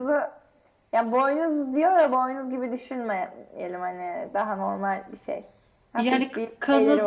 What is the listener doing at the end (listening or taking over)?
taking over